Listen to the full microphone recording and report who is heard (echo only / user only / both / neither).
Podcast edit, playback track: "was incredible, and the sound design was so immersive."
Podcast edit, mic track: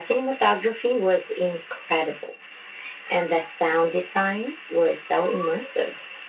echo only